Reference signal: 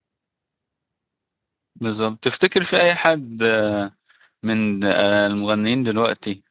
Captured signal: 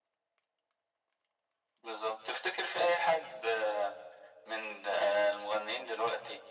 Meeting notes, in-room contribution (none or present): none